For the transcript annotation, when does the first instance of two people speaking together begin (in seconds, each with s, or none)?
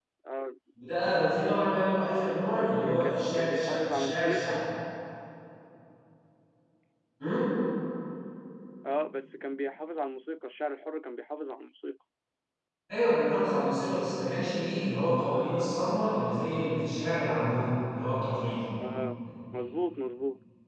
2.6 s